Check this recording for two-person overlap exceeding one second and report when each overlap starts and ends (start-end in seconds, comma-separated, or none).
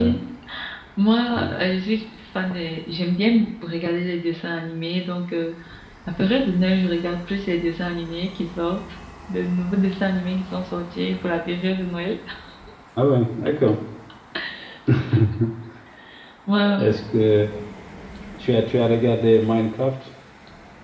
none